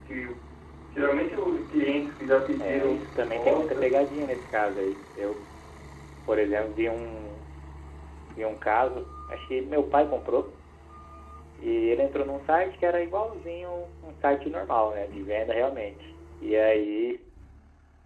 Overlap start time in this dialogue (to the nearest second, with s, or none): 3 s